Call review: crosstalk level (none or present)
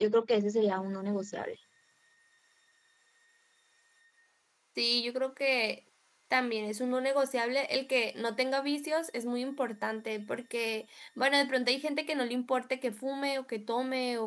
none